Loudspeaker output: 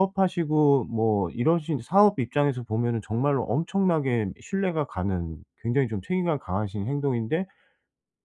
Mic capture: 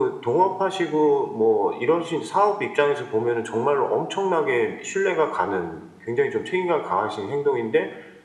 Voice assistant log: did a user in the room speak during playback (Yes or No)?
No